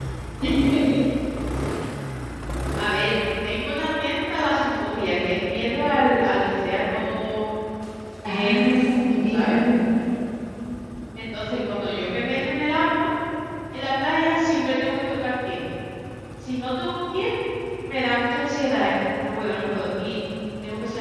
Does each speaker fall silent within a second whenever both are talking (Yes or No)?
No